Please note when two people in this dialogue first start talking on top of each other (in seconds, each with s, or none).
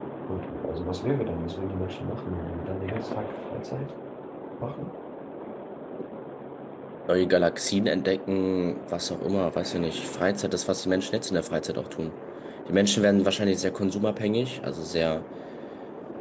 none